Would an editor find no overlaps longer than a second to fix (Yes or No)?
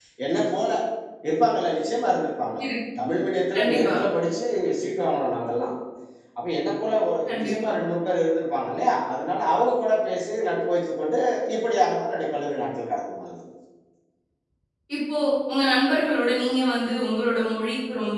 Yes